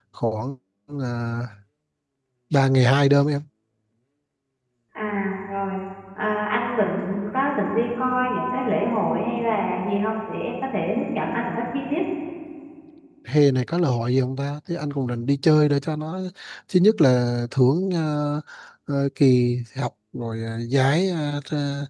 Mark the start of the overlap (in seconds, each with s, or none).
none